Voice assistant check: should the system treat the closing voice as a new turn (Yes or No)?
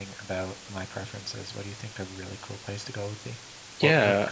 Yes